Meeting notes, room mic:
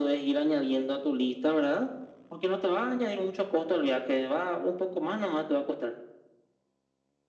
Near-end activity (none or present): none